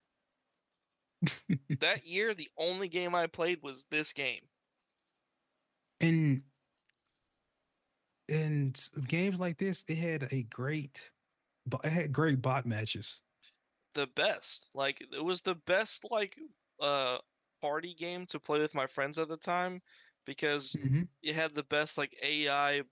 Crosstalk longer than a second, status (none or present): none